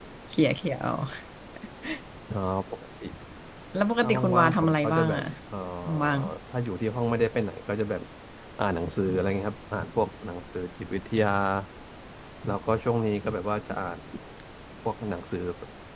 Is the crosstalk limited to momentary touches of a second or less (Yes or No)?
No